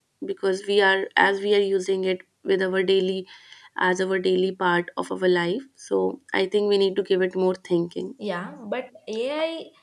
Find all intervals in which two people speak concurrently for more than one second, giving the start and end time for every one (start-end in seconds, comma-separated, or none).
none